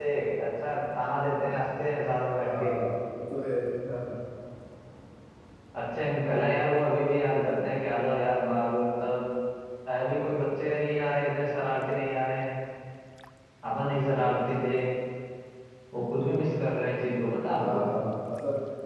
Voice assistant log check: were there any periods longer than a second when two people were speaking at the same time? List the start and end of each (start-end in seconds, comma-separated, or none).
none